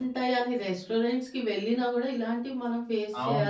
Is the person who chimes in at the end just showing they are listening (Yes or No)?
No